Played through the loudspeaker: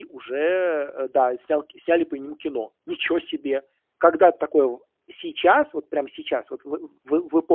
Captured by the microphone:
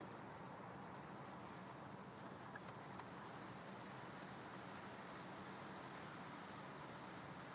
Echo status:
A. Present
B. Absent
B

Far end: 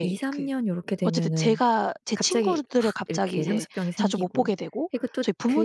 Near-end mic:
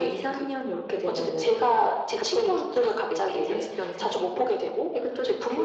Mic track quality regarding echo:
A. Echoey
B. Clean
A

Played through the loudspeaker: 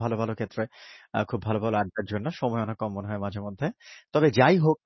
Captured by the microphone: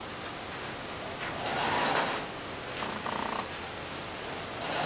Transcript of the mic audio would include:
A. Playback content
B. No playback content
B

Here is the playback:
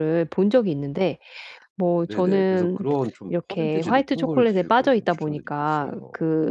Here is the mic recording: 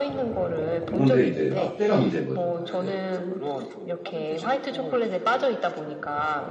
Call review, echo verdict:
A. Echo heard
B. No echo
A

